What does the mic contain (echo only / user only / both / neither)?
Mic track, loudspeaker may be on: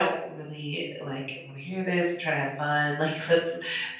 echo only